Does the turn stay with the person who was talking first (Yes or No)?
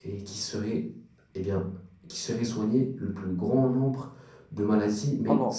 Yes